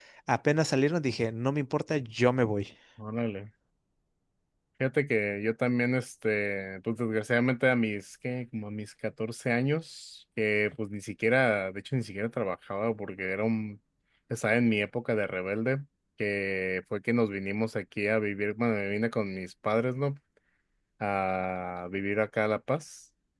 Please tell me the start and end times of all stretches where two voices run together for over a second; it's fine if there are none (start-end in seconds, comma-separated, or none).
none